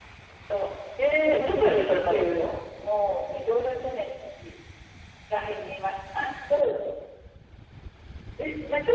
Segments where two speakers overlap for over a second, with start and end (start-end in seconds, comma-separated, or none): 1.3-2.5